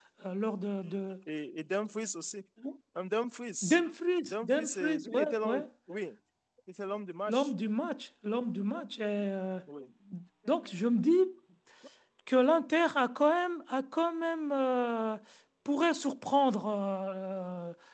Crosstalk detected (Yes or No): Yes